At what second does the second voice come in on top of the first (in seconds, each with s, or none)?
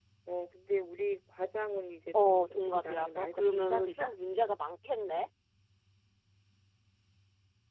2.1 s